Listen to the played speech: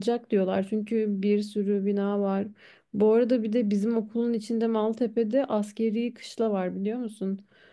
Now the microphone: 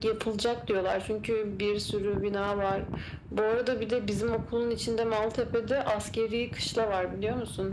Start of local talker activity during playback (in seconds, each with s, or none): none